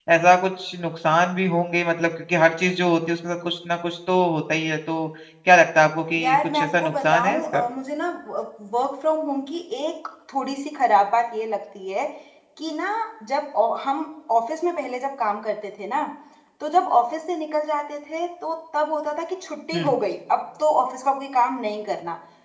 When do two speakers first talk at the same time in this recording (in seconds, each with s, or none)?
6.2 s